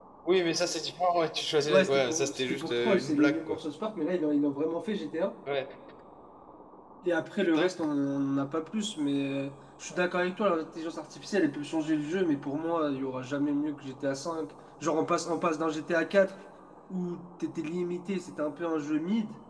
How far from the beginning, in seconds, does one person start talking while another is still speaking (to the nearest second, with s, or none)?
2 s